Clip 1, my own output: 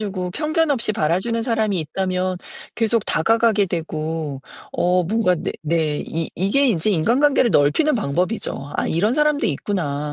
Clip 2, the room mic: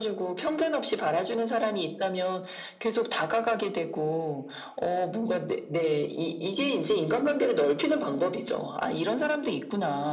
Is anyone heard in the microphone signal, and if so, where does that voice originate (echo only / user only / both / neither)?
echo only